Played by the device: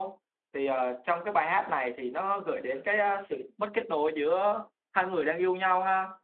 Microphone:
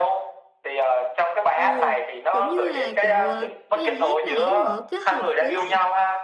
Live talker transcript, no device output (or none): ồ giống như là kiểu ờ, Bây giờ hát này á, họ kết hợp với lại